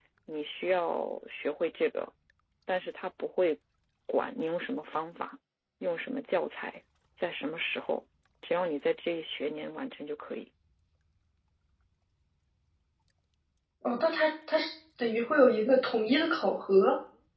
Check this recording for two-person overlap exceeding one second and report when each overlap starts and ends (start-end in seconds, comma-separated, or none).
none